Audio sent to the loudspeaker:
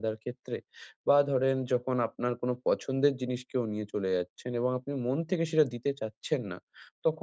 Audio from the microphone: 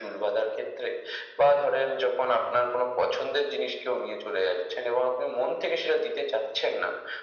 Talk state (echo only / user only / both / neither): echo only